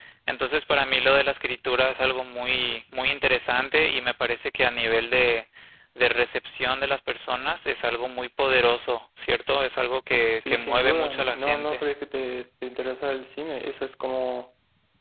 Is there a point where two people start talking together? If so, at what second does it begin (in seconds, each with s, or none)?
10.4 s